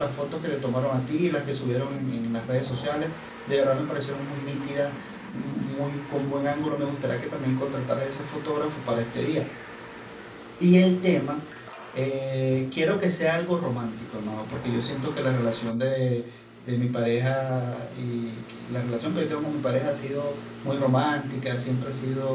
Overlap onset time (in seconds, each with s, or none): none